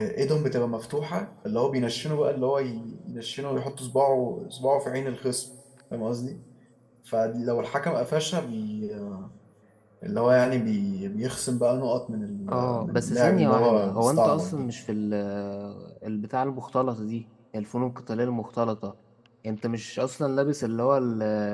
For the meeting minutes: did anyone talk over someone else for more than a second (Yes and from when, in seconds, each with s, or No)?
Yes, from 12.5 s